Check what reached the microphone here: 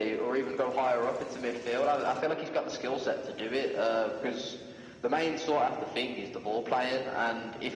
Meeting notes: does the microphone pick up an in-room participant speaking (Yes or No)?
No